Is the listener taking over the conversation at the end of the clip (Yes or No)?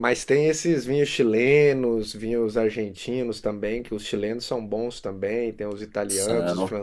No